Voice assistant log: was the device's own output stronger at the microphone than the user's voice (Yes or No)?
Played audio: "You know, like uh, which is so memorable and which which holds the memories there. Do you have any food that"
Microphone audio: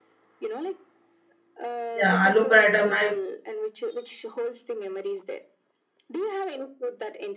No